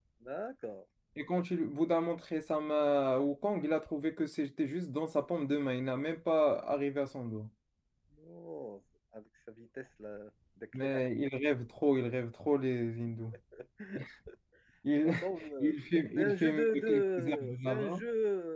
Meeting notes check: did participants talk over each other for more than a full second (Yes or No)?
Yes